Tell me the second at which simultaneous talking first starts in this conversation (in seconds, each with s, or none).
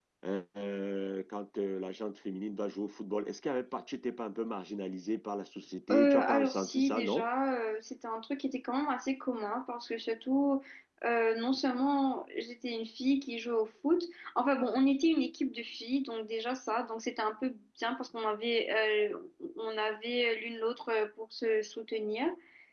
5.9 s